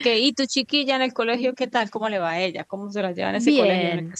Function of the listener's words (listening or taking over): taking over